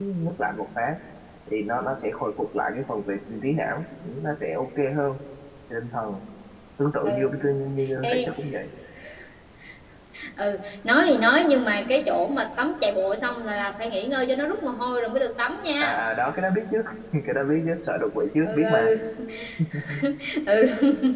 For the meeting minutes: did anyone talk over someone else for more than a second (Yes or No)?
No